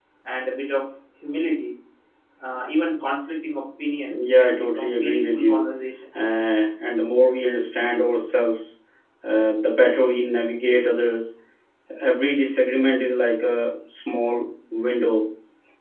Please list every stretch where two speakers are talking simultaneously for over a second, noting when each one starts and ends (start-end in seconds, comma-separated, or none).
4.1-5.7